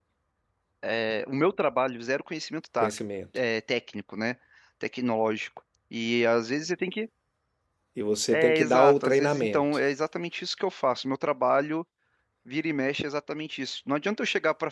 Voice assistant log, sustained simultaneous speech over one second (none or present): present